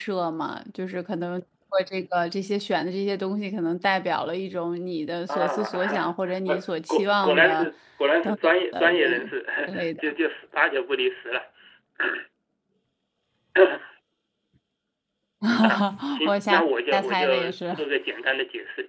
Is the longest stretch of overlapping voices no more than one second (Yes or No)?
No